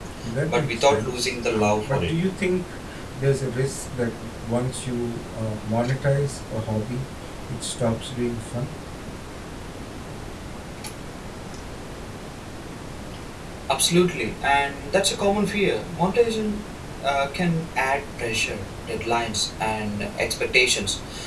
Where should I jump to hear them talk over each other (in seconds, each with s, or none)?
0.5 s